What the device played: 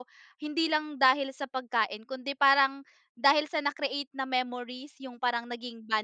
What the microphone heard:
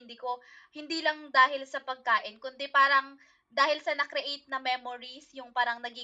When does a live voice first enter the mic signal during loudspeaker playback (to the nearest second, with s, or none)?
none